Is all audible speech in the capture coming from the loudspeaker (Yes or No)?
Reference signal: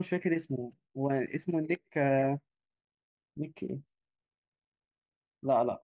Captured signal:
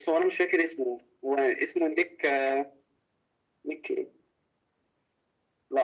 Yes